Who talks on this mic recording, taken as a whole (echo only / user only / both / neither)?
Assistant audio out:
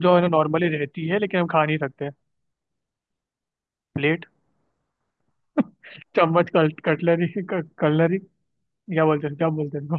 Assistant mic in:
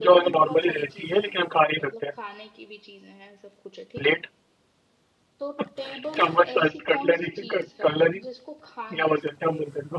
both